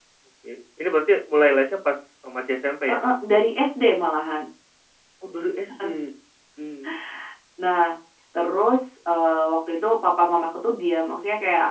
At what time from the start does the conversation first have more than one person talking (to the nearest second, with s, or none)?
none